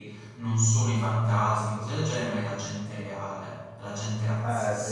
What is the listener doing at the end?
taking over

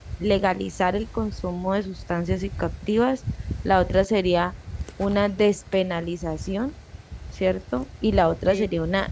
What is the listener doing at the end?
listening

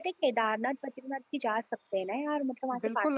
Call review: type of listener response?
taking over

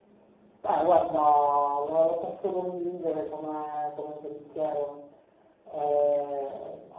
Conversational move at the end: listening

